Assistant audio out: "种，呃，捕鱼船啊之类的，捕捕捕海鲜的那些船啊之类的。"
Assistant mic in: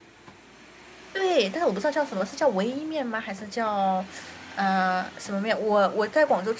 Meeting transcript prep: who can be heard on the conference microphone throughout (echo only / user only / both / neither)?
user only